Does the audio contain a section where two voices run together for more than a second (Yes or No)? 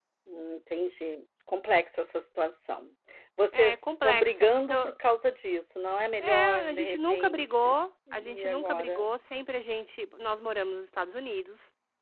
Yes